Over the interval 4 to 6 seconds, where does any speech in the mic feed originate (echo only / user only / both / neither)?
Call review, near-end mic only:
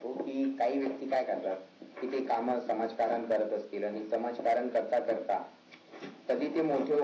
echo only